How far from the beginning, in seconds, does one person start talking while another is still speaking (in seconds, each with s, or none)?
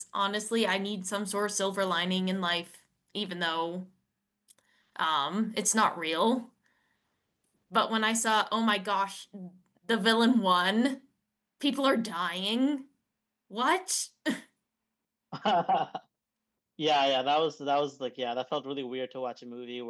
none